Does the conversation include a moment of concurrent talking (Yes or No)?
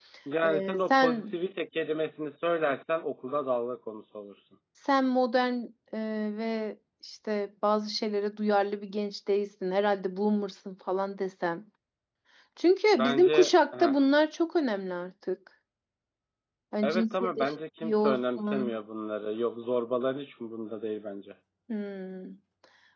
Yes